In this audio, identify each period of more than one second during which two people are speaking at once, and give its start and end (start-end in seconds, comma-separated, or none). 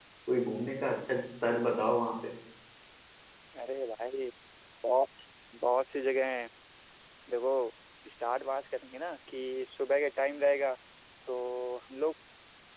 none